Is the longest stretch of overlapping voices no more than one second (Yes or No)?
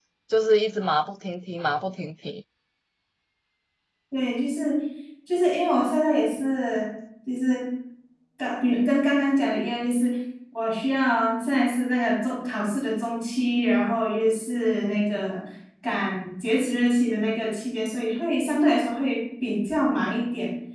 Yes